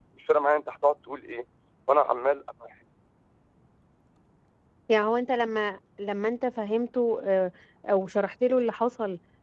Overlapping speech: No

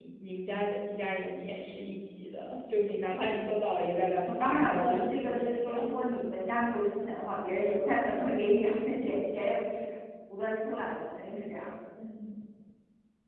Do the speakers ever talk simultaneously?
Yes, from 4.3 s

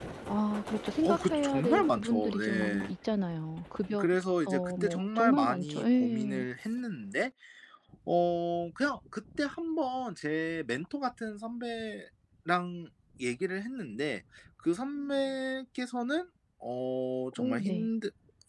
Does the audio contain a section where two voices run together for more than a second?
Yes, from 1.0 s

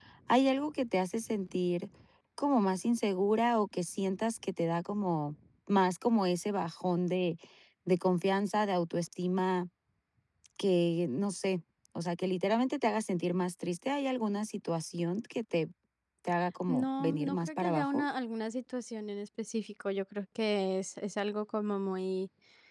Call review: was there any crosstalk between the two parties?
Yes, from 16.7 s

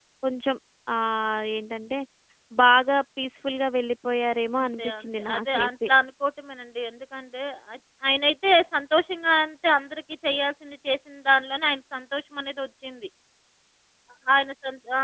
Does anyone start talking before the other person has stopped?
Yes, from 4.6 s

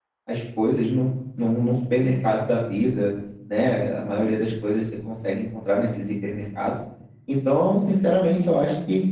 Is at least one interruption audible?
No

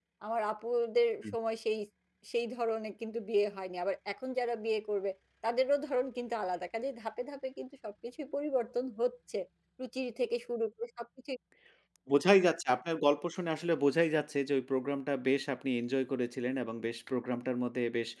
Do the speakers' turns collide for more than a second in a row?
No

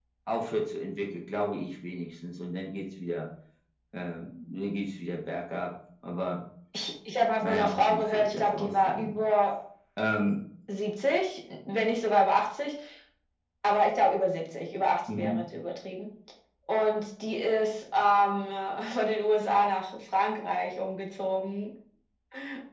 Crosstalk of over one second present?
Yes, from 7.4 s

